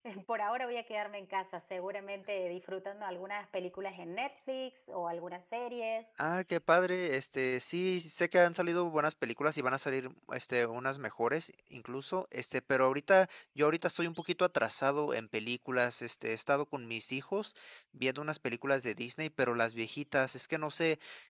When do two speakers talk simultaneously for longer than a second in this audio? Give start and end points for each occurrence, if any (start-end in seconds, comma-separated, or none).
none